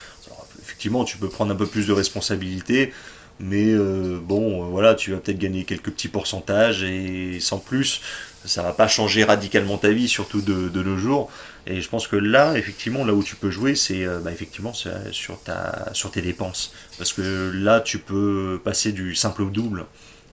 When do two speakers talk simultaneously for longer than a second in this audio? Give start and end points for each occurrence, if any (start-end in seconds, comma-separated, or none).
none